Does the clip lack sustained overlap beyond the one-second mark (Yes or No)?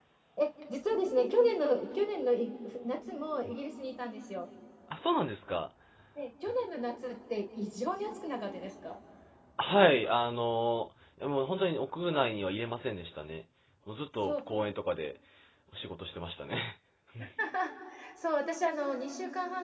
Yes